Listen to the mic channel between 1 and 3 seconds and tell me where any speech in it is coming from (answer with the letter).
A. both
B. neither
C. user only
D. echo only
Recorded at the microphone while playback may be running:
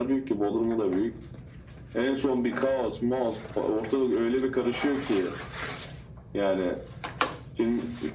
D